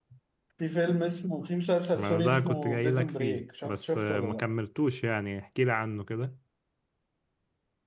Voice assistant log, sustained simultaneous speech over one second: present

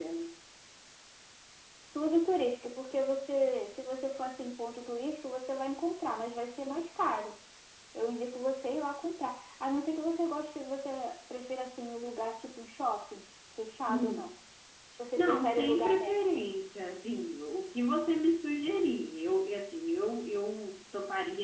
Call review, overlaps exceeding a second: present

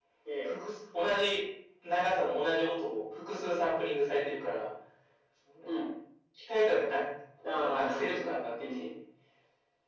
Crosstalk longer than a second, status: present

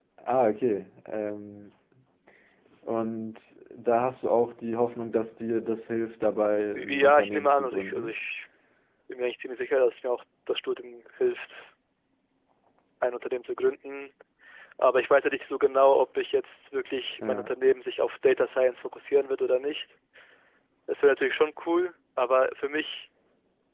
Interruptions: present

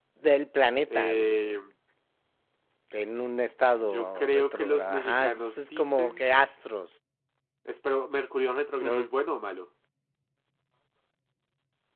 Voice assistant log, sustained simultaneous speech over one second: present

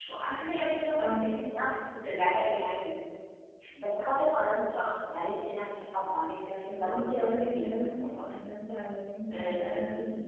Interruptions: present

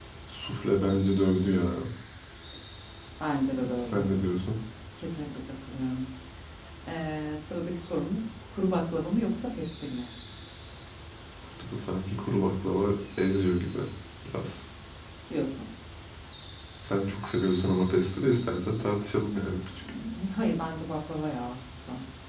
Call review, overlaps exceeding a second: none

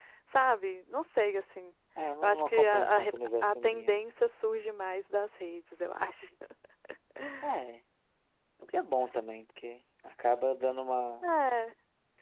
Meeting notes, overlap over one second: present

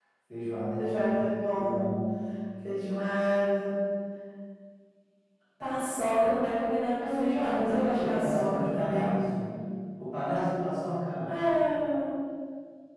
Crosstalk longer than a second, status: present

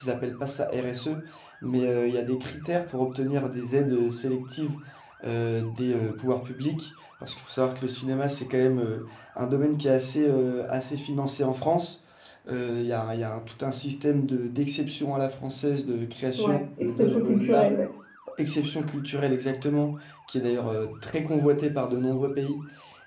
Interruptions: present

